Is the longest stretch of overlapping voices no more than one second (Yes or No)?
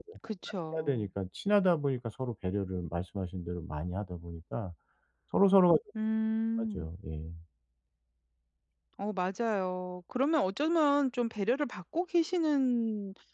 Yes